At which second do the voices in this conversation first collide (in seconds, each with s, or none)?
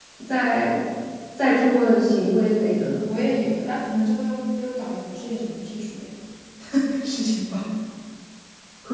none